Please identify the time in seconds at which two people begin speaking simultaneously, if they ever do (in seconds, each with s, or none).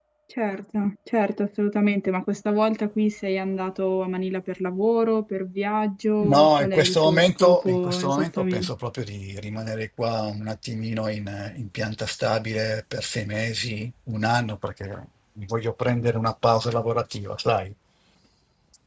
6.2 s